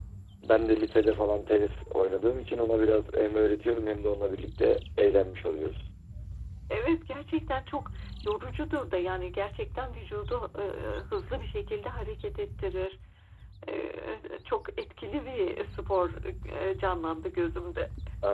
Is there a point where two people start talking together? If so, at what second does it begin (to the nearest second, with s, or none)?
none